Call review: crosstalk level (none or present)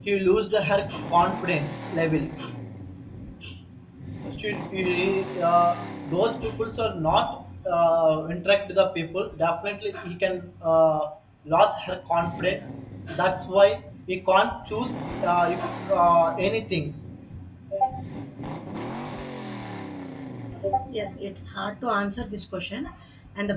none